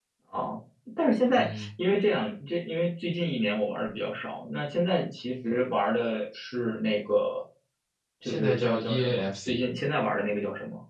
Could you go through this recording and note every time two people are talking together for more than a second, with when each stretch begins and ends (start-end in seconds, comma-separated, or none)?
8.2-9.6